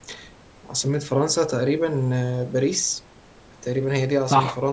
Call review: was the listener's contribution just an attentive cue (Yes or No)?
No